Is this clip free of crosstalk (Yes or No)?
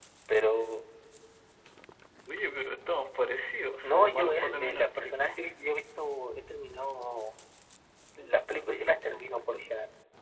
No